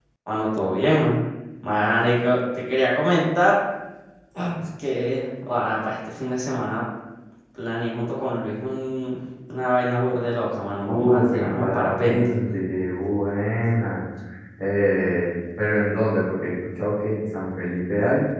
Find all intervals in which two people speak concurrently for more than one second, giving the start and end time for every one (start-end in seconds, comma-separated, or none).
10.8-12.2